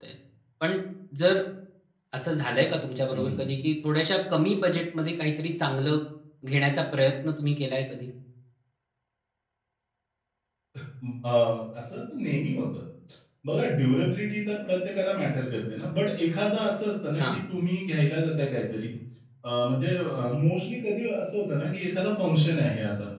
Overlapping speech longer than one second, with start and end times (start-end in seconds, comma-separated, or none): none